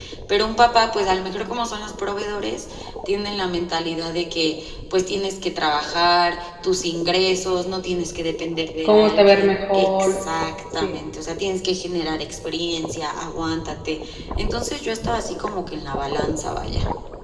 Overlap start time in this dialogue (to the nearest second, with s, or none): 9 s